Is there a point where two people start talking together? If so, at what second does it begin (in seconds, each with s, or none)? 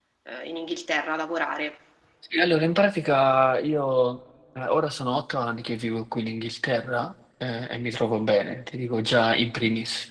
none